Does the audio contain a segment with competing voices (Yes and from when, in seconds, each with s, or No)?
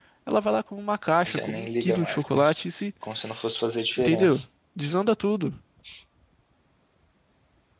Yes, from 1.3 s